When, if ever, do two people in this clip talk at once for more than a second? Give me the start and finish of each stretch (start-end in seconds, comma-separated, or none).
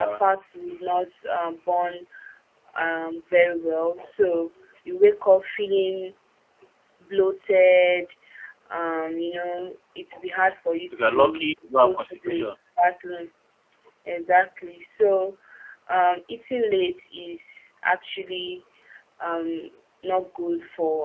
11.0-12.4